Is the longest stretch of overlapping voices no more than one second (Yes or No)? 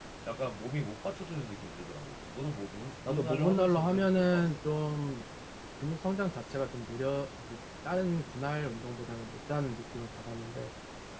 No